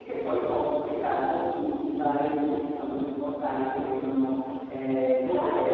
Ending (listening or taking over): listening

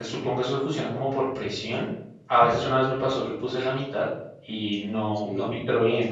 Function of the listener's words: listening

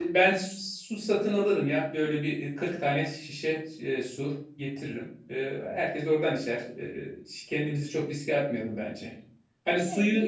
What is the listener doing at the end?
listening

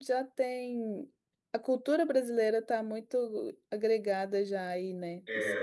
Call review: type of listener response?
taking over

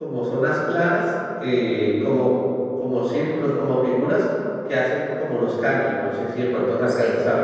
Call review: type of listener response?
listening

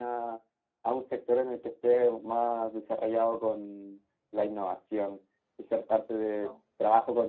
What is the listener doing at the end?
listening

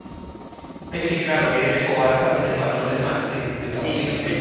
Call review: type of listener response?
taking over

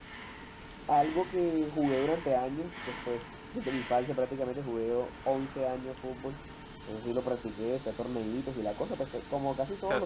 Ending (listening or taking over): taking over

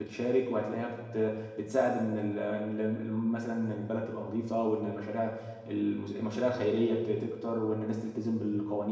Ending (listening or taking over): listening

